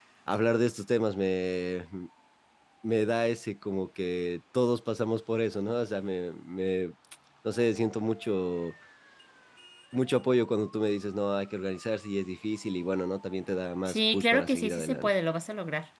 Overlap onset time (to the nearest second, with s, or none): 14 s